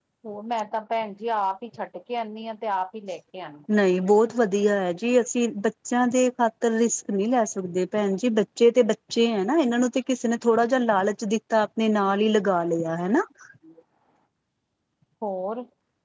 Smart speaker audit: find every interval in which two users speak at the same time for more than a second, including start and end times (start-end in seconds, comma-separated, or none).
none